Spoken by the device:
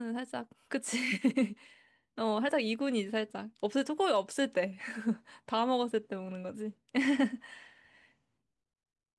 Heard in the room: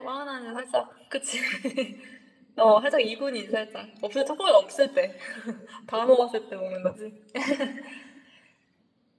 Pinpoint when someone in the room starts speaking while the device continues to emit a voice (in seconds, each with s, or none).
none